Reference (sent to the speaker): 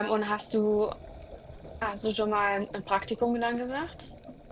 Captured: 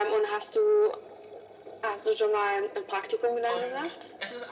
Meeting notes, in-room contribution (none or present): present